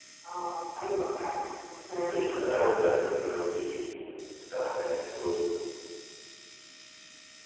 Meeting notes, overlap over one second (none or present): present